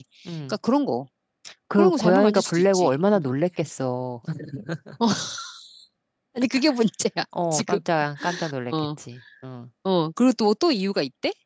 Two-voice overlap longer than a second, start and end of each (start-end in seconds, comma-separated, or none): 1.8-3.2